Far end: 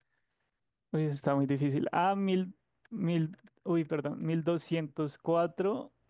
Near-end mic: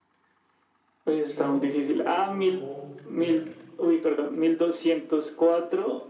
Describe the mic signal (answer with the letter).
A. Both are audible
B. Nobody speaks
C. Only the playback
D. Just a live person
A